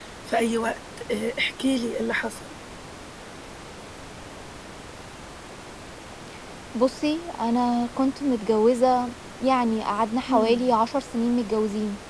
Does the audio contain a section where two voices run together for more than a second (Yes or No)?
No